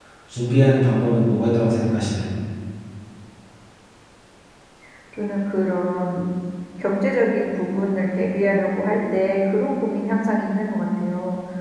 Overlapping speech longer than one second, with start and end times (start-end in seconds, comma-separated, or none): none